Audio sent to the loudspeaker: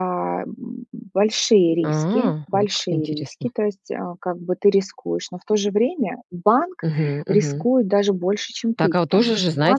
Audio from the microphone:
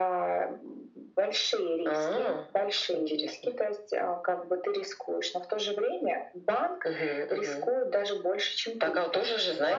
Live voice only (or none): none